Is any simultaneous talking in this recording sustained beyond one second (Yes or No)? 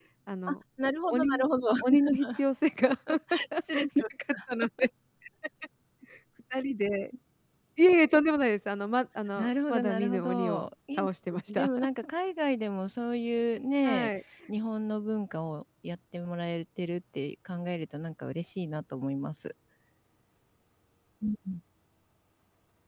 Yes